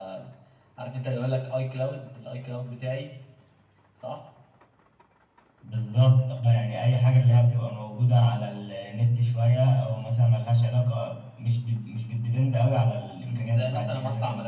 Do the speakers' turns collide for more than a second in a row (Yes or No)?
Yes